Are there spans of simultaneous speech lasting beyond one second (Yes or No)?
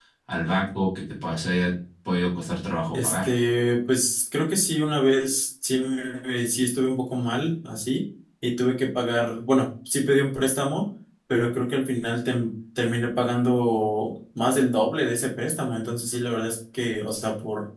No